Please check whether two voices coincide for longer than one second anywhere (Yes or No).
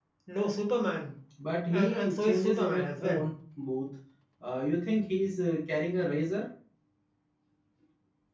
Yes